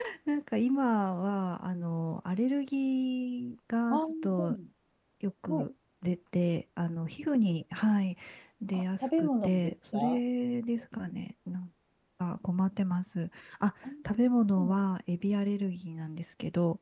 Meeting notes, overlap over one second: present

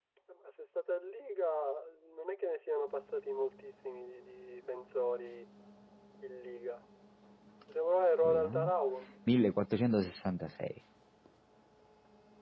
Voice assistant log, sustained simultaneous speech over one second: none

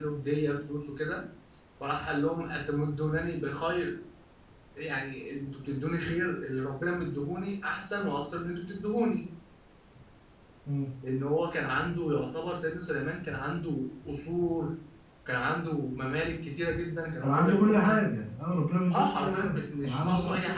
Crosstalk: present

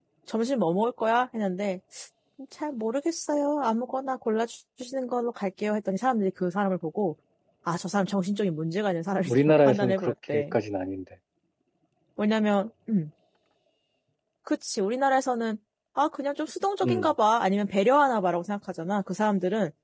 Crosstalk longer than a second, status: present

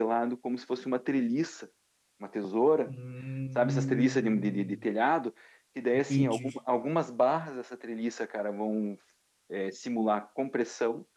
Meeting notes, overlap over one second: present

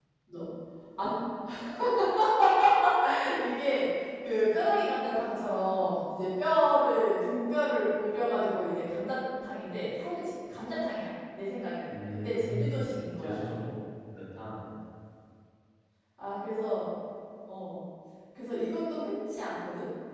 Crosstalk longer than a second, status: present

